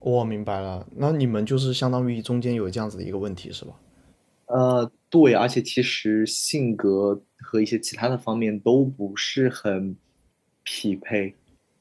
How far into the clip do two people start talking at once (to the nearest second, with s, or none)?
none